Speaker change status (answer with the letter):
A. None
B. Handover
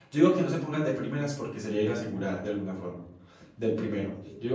A